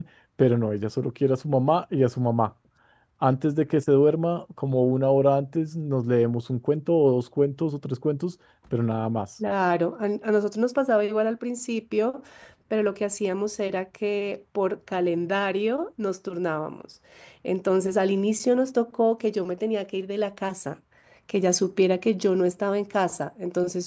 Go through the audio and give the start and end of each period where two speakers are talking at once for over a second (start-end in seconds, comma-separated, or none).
none